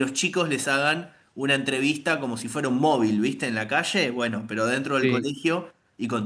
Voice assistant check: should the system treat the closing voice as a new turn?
No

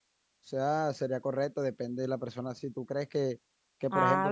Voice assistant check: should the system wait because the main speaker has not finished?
Yes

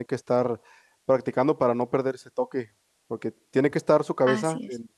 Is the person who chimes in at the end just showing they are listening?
Yes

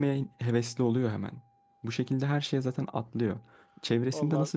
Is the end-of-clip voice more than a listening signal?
No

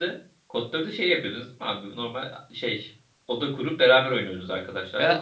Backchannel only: No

